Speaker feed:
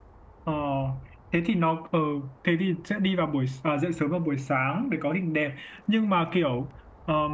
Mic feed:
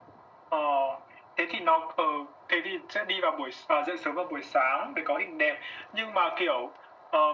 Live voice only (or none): none